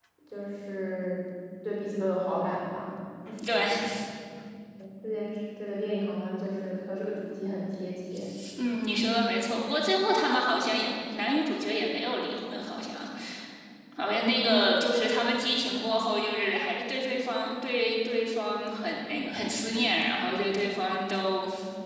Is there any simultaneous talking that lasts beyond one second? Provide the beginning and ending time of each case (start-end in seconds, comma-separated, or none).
none